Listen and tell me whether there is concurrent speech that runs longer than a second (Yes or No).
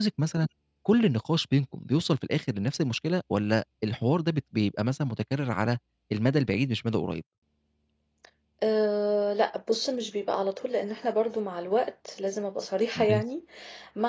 No